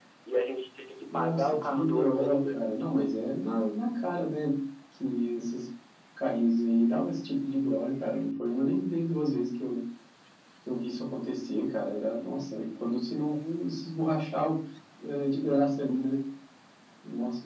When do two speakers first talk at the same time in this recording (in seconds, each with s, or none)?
1.1 s